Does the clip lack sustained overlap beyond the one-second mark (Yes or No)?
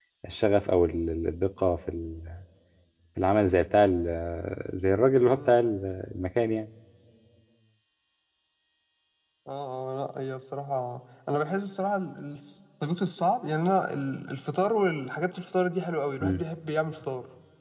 Yes